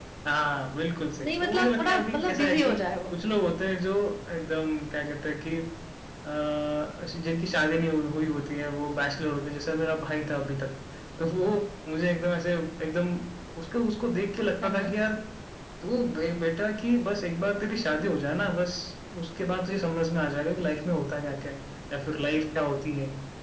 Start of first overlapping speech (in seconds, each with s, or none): 1.2 s